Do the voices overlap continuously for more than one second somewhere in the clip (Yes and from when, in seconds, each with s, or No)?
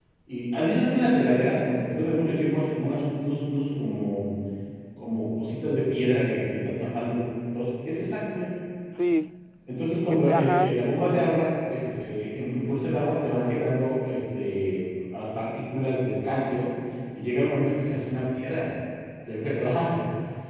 Yes, from 10.1 s